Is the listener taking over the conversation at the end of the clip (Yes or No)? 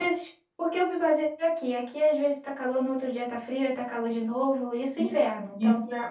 Yes